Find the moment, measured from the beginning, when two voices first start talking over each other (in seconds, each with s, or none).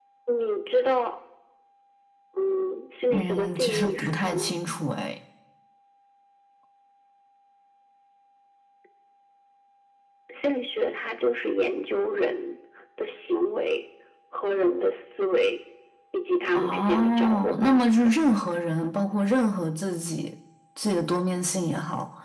3.1 s